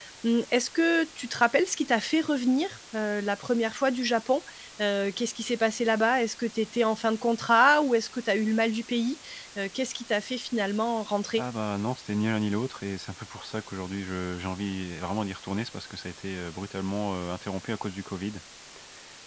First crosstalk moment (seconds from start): none

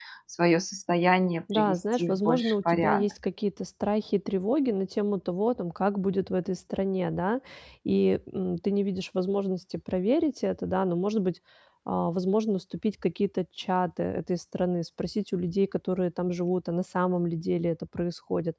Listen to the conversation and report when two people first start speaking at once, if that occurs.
1.5 s

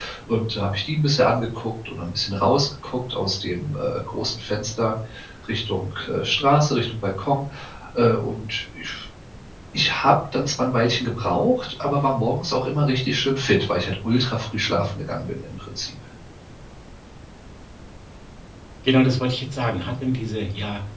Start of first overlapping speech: none

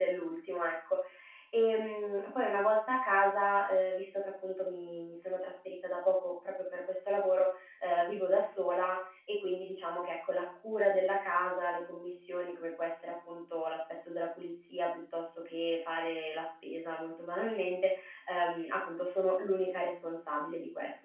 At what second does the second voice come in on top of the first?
none

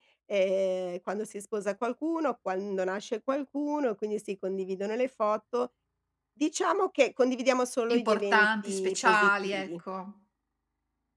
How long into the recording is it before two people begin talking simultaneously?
7.9 s

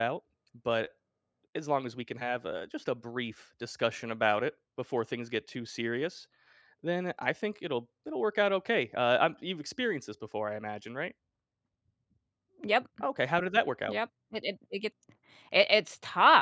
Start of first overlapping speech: none

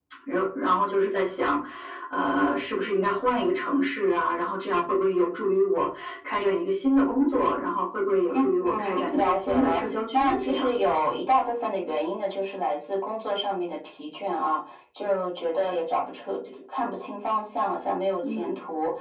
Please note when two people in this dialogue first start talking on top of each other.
8.3 s

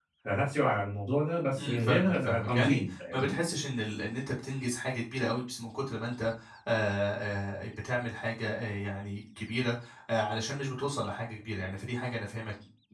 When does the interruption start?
1.6 s

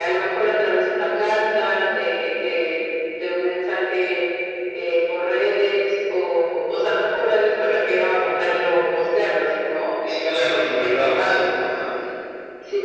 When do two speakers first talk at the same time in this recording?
10.1 s

